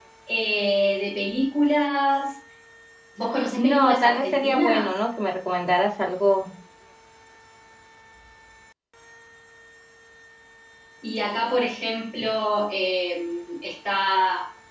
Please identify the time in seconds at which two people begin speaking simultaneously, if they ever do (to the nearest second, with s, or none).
4 s